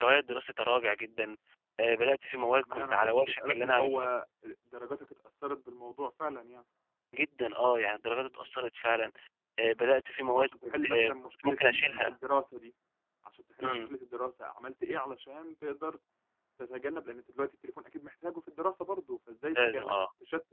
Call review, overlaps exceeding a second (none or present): present